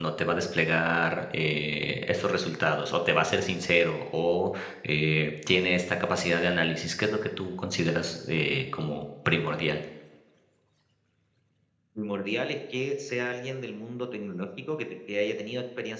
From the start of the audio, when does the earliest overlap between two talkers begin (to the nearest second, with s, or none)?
none